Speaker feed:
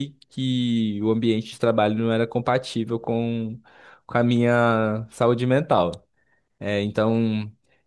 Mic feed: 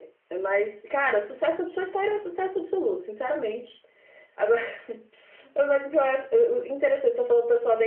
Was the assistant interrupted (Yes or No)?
Yes